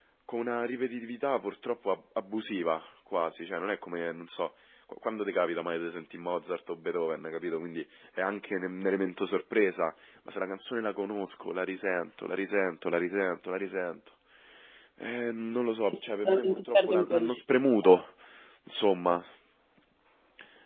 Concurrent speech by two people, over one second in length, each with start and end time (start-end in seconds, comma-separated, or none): 15.9-18.0